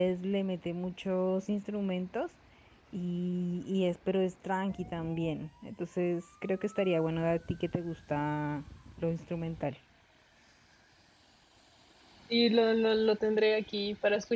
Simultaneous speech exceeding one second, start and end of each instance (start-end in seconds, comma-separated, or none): none